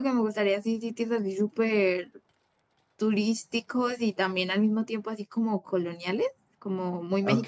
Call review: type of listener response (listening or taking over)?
taking over